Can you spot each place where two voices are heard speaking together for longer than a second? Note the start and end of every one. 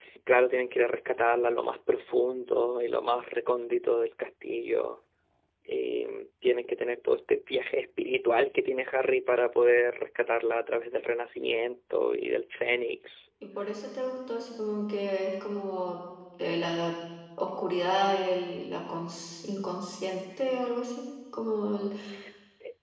none

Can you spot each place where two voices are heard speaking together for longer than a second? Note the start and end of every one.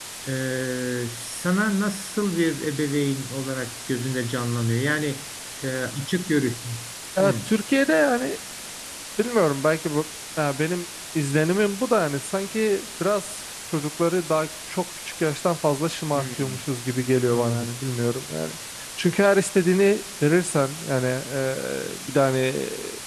none

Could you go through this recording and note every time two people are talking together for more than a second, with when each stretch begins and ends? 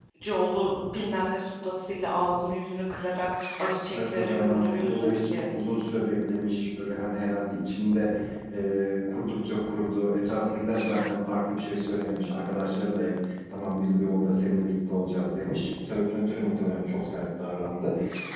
3.9-5.5

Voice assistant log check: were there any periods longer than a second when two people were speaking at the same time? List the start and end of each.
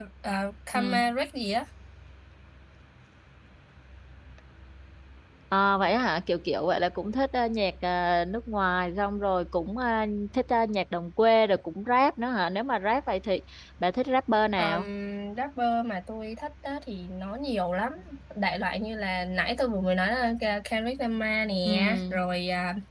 none

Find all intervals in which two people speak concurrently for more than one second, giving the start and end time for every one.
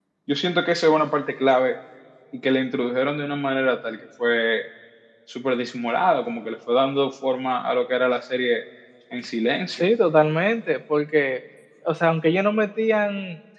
none

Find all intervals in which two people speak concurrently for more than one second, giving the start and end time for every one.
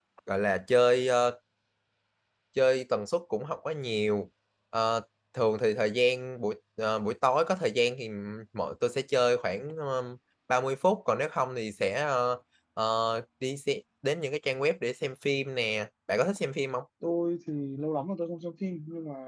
none

